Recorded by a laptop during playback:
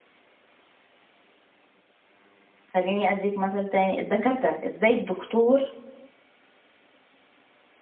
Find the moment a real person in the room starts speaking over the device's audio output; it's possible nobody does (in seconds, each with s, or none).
2.7 s